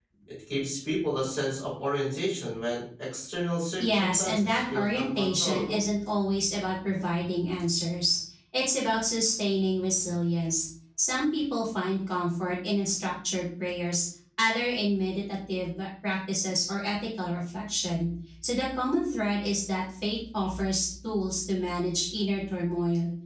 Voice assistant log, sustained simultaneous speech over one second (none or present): present